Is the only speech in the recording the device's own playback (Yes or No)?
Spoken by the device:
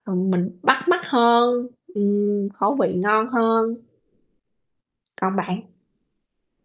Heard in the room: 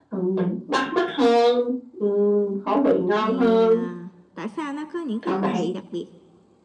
No